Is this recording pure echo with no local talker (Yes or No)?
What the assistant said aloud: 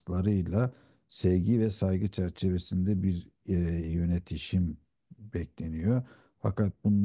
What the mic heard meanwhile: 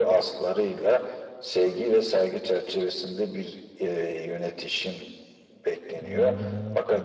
No